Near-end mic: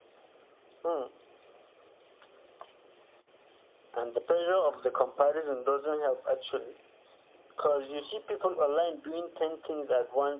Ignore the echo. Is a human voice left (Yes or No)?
No